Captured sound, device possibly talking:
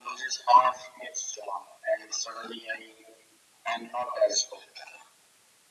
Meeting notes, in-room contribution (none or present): none